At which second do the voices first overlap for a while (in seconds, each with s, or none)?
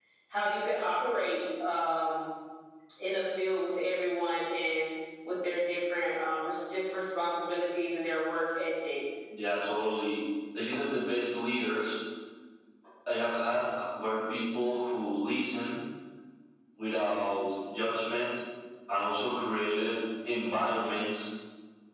none